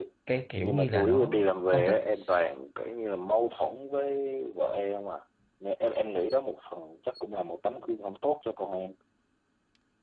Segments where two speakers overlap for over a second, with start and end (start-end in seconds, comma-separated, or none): 0.6-2.0